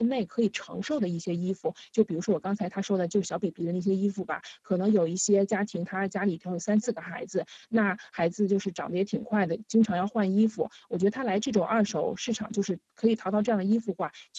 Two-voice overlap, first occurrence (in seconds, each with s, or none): none